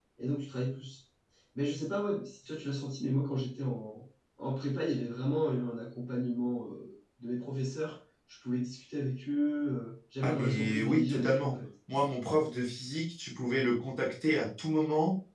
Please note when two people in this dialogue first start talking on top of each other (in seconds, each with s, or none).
10.2 s